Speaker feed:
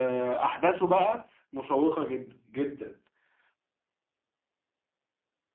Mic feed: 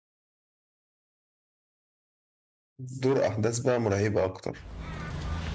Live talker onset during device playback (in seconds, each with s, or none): 2.9 s